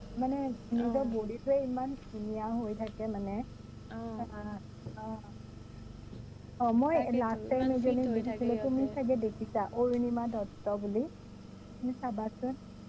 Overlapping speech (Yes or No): Yes